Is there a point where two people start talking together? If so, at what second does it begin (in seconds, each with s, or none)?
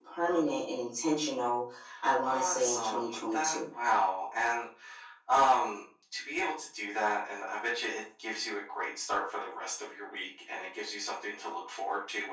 2.2 s